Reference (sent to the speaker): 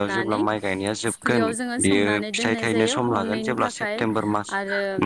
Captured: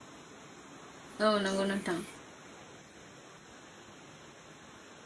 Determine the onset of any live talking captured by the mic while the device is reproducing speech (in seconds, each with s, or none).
1.2 s